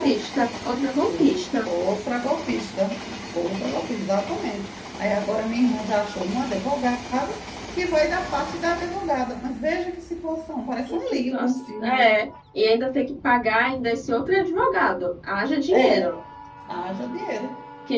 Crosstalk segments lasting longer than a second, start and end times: 10.9-12.2

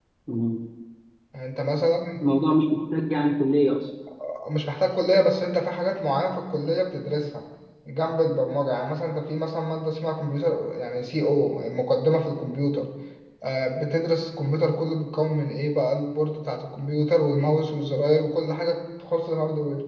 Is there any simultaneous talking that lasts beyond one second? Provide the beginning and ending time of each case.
none

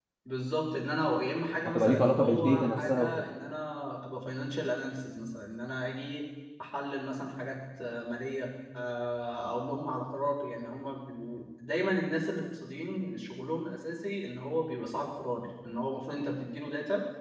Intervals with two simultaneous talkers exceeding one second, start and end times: 1.7-3.3

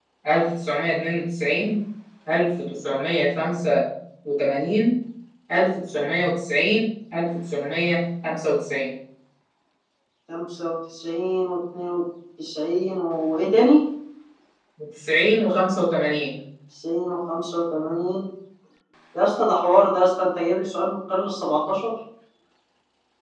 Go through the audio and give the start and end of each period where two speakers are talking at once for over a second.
none

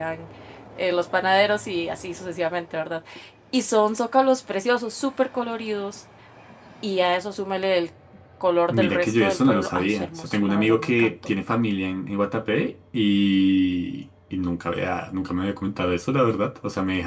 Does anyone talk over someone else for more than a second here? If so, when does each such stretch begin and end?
8.7-11.1

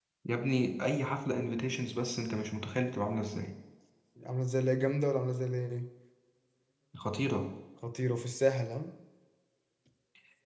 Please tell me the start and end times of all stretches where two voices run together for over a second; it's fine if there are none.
none

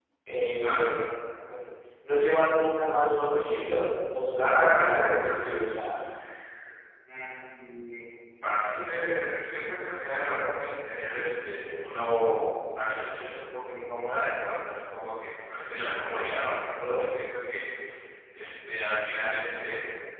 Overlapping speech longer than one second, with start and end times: 4.4-6.0

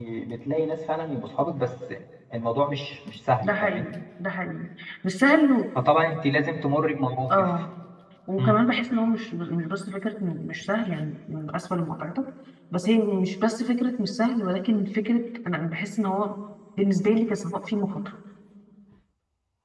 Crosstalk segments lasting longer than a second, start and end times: none

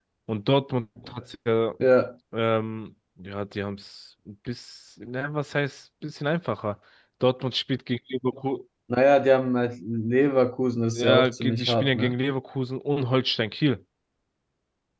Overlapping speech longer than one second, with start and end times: 10.9-12.1

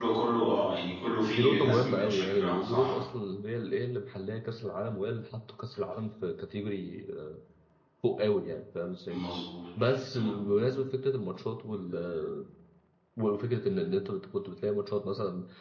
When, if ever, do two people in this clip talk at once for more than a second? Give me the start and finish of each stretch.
1.3-3.0

